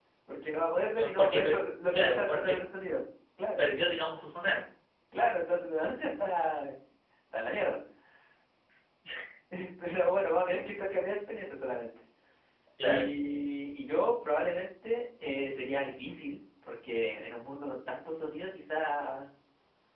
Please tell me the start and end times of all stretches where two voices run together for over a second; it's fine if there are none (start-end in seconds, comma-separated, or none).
1.0-2.6